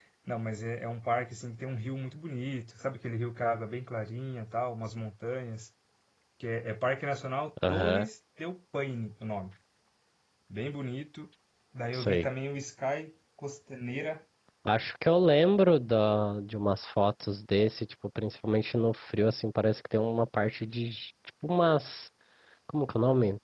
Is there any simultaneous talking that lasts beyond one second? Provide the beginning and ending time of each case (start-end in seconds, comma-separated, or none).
none